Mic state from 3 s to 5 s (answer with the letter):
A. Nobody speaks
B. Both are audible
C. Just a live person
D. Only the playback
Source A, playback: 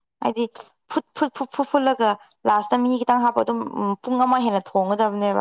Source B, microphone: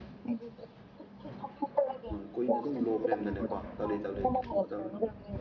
B